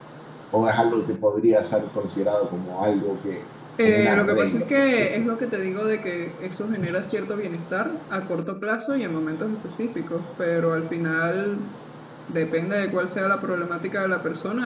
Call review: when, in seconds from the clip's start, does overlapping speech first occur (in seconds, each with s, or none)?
3.8 s